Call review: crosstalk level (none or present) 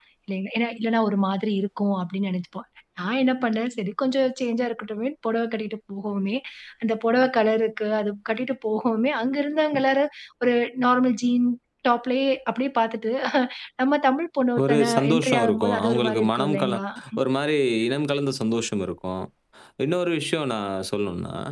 present